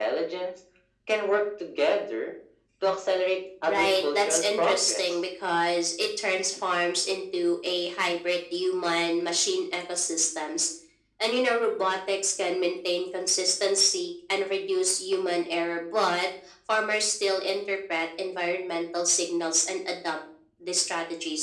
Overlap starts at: 3.7 s

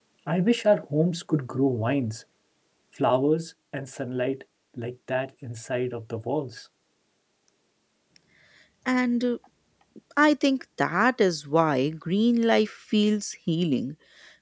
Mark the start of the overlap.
none

